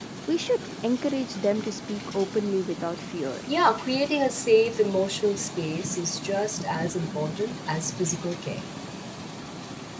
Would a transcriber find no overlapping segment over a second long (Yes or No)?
Yes